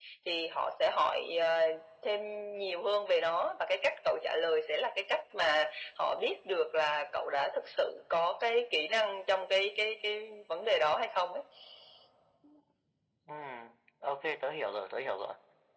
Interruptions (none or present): none